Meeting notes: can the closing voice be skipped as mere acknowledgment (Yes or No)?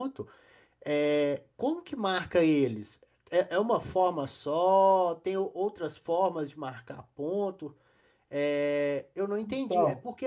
Yes